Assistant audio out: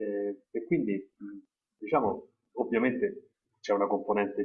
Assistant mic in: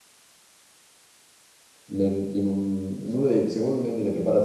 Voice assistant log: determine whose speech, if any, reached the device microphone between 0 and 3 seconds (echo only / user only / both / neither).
user only